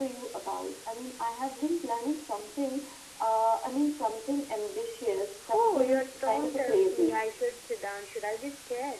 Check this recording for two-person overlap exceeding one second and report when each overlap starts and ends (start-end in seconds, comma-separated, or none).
5.5-7.2